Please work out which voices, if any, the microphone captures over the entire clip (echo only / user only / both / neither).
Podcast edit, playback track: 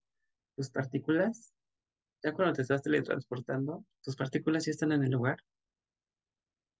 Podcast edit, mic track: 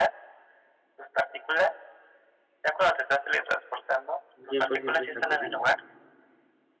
both